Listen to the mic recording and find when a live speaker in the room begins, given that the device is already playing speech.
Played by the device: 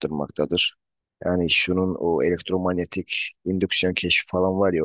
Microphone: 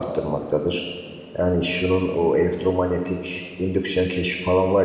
none

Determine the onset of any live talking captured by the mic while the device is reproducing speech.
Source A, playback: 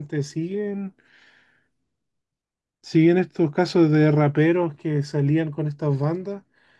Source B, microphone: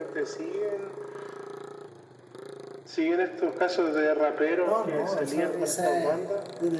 4.6 s

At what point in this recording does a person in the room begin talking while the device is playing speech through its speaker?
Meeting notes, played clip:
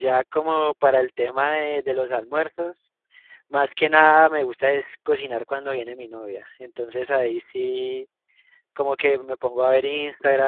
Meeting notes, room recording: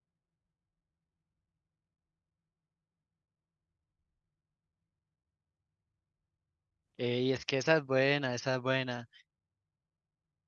7.0 s

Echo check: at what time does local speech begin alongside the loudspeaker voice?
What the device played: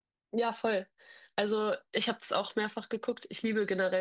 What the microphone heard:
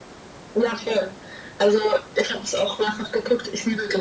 none

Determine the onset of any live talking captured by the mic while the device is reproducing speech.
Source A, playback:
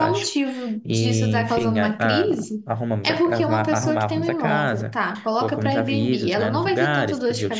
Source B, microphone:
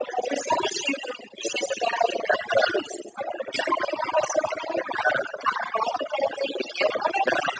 none

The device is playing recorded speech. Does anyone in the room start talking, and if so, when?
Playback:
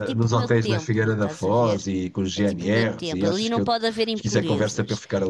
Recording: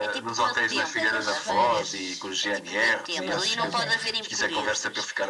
0.7 s

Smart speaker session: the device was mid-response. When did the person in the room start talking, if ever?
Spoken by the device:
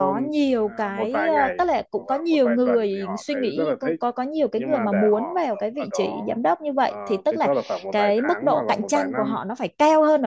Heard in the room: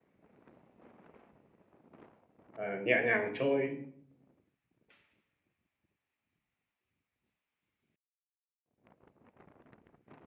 2.5 s

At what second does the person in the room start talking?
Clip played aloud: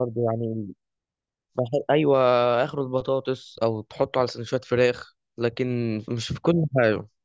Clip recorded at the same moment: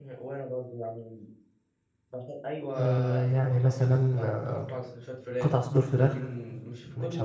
2.7 s

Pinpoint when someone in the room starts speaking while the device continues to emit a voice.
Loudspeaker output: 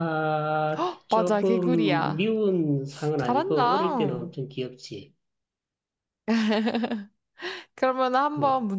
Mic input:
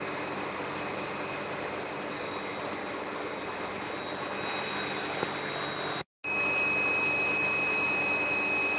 none

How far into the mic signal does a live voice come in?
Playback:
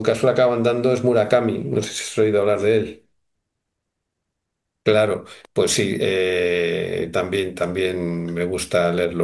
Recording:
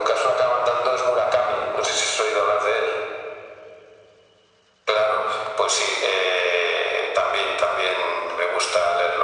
none

